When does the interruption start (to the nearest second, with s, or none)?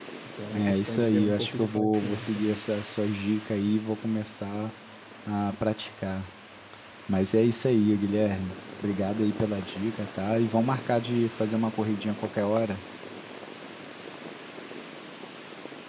1 s